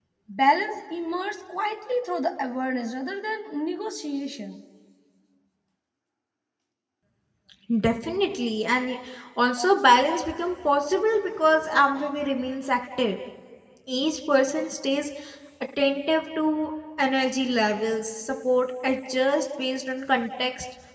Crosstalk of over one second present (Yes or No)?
No